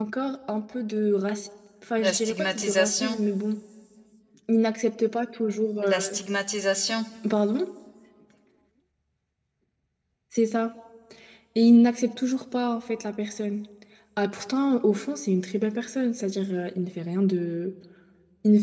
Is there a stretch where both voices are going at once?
Yes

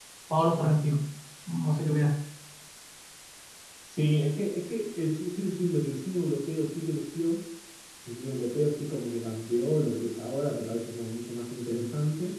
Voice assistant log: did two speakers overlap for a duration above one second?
No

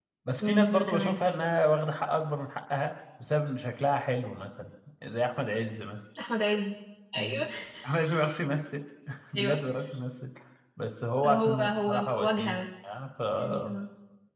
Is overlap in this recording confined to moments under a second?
No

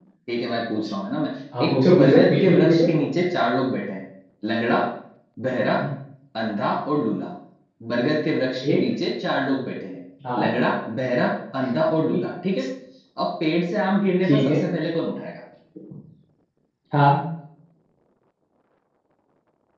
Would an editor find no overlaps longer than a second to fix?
No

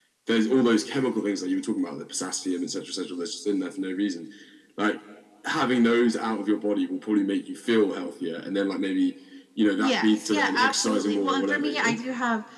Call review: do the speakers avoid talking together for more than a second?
No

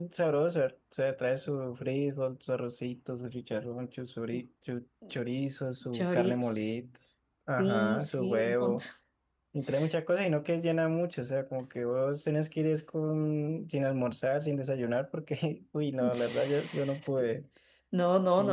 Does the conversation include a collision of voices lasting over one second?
Yes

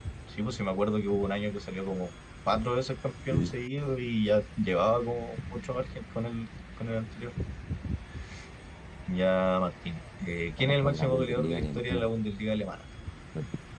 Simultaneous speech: Yes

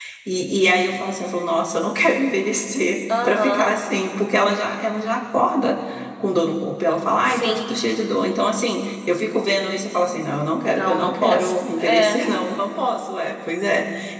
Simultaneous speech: Yes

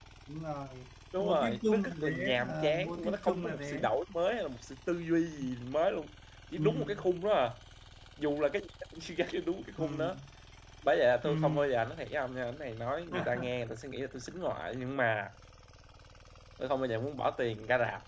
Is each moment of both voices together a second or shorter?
No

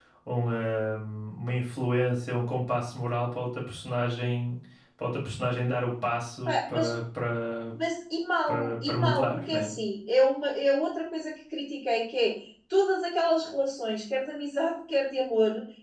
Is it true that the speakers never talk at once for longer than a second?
No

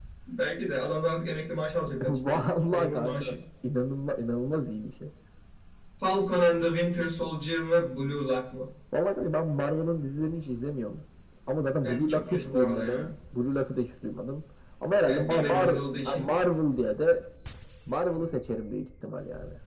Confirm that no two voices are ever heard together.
No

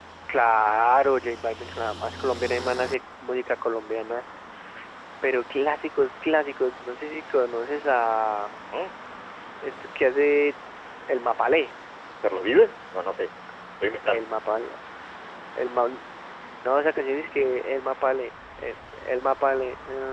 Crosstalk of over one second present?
No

